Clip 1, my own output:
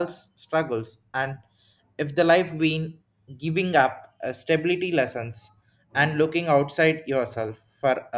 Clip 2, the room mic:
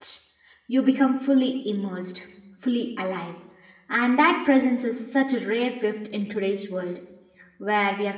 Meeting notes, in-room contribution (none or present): present